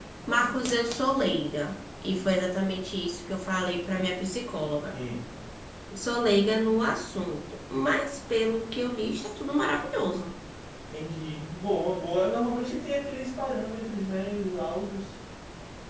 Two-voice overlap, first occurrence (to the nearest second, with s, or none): none